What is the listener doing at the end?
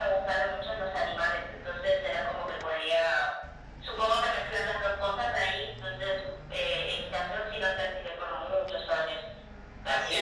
taking over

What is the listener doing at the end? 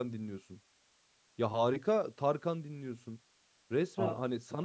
listening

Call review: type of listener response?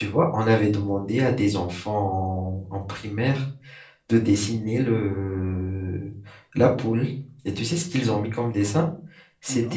listening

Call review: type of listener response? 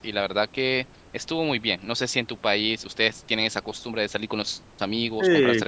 taking over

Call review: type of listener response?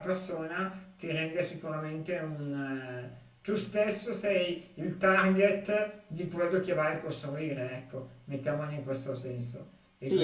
taking over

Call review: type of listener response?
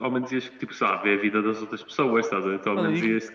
taking over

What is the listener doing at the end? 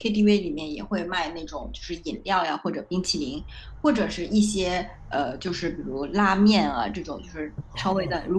listening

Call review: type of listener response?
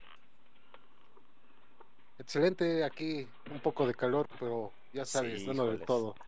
taking over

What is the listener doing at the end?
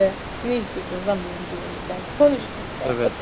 taking over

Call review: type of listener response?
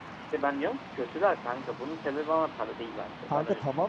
taking over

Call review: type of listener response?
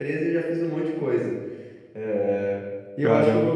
listening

